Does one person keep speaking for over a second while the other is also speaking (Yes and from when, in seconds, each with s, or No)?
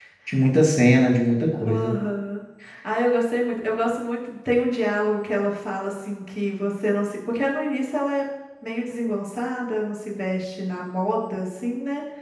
No